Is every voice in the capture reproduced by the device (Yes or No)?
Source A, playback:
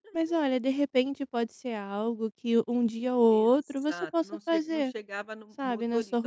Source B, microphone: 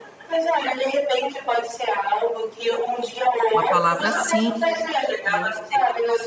No